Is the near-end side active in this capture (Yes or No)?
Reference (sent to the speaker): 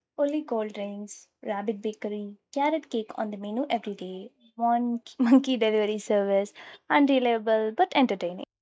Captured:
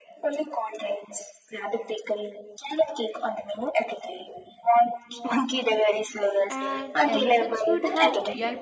Yes